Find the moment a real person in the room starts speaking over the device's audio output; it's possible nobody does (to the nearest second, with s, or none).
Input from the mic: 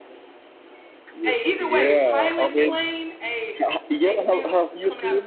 1 s